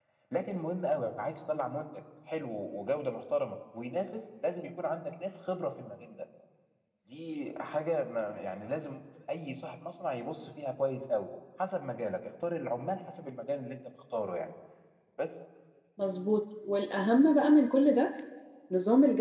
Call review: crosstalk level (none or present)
none